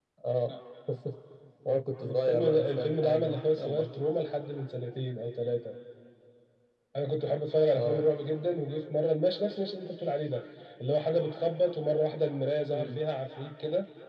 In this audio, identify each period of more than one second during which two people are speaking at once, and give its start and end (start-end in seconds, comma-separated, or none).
2.0-3.9